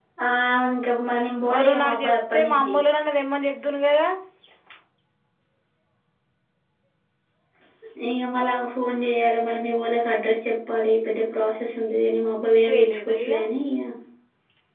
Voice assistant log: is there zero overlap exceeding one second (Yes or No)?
No